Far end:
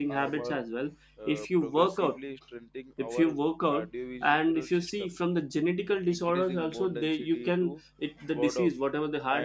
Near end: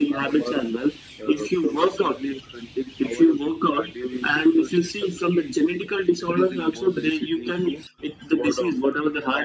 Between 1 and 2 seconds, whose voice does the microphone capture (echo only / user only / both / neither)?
echo only